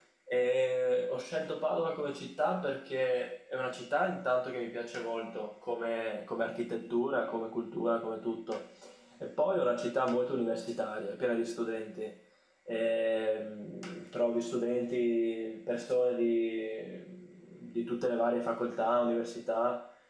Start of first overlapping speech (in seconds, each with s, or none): none